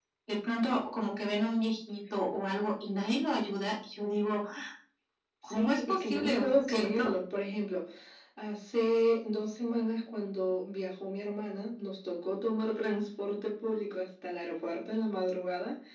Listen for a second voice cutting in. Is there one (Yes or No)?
Yes